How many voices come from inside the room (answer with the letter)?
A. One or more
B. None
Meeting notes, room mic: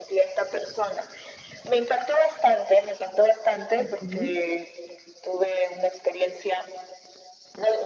A